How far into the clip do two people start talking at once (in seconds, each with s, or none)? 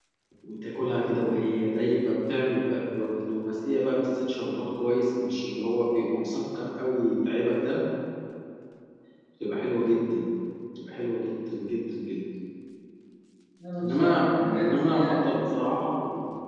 13.8 s